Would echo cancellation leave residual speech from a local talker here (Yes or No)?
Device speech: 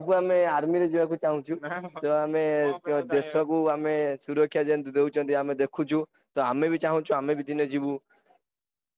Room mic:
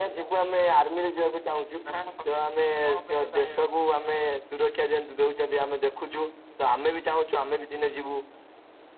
No